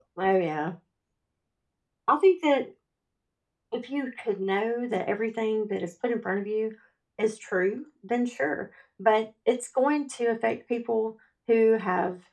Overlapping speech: No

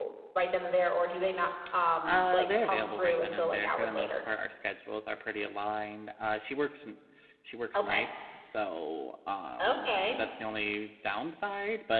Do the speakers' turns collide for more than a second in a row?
Yes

